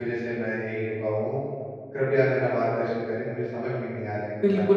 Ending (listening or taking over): taking over